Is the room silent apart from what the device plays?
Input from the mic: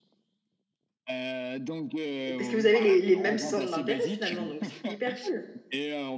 No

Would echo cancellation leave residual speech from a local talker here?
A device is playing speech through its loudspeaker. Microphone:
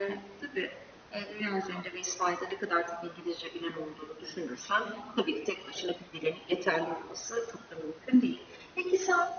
No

